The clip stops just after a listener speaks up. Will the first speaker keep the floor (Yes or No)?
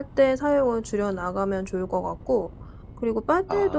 Yes